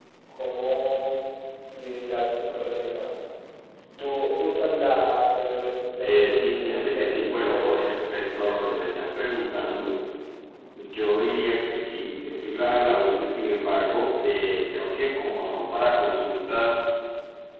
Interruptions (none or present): present